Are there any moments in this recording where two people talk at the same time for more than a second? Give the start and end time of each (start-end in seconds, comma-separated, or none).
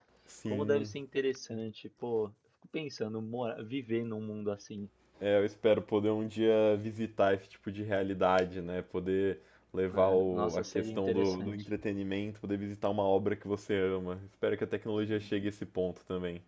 9.9-11.6